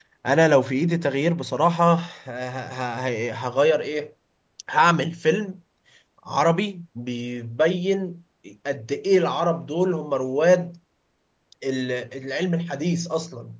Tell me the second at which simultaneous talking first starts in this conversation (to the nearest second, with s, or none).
none